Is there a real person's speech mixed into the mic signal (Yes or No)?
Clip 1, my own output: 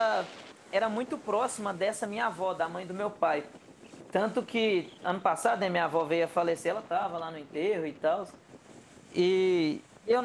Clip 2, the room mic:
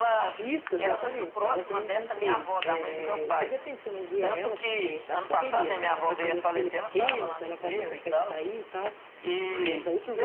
Yes